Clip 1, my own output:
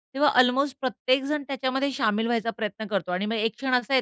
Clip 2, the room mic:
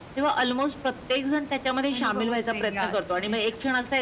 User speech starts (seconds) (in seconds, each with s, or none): 1.9 s